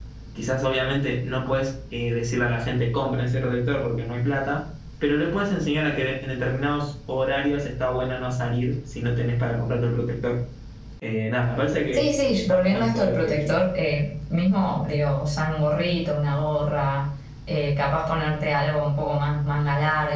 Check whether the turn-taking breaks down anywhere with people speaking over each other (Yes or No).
Yes